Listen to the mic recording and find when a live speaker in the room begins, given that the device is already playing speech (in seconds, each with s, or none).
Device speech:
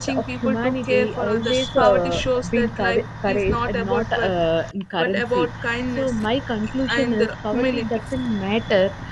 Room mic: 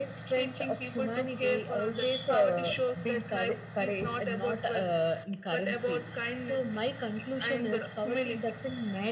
none